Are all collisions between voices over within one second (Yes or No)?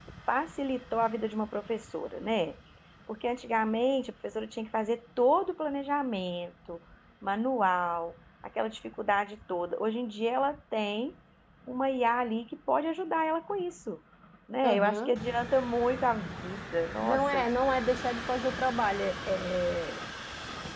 Yes